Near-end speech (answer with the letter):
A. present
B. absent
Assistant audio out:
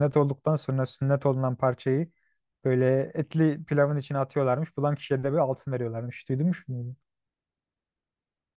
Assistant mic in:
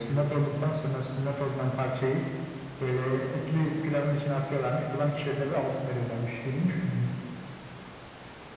B